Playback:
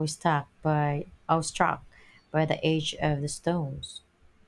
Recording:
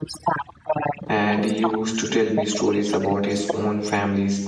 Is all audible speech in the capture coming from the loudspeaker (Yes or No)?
No